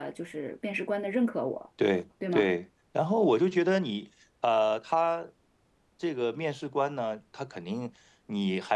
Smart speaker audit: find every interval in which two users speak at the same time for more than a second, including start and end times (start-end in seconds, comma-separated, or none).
none